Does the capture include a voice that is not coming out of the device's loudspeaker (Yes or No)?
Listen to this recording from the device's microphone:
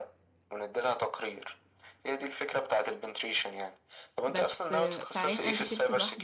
Yes